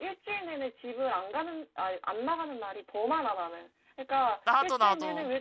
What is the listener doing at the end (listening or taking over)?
listening